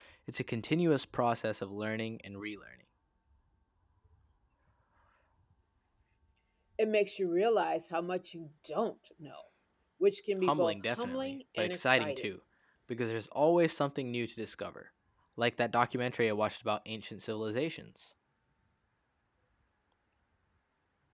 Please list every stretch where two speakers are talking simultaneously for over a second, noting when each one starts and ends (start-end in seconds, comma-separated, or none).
10.4-12.2